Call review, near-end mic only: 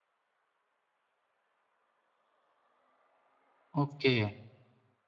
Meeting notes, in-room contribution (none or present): present